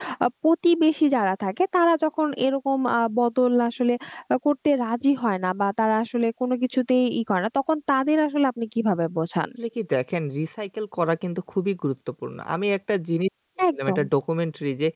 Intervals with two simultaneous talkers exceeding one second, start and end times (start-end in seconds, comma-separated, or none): none